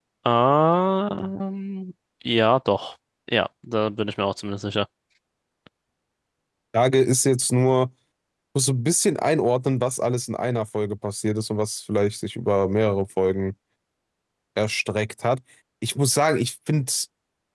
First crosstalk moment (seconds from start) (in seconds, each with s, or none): none